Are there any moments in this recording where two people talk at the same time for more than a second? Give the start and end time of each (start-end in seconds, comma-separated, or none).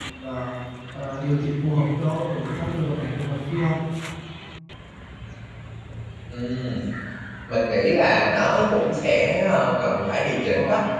none